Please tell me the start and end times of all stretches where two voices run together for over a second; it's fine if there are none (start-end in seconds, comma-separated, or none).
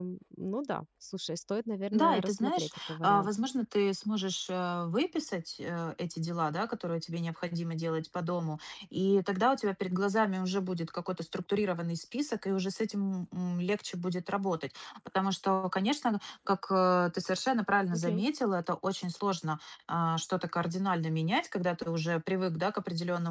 1.9-3.3